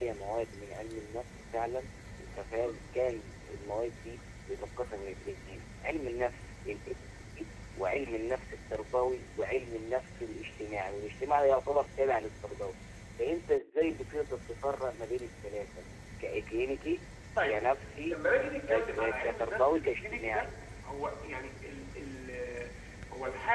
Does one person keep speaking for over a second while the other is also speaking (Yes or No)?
Yes